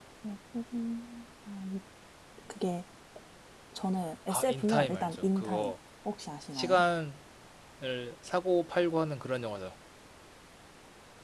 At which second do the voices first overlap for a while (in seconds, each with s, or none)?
4.3 s